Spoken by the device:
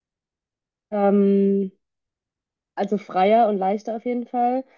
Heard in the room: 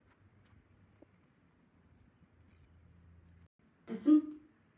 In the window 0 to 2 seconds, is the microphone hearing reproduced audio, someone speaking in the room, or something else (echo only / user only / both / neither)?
neither